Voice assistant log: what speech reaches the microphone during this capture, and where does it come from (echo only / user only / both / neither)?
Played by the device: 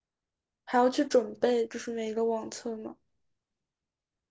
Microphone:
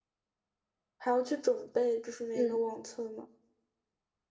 both